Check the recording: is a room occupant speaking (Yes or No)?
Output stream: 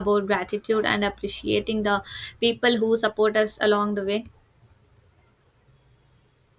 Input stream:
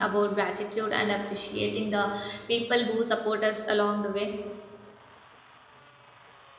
No